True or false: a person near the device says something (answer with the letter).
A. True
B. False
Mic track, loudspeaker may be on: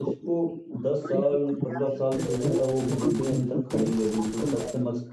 A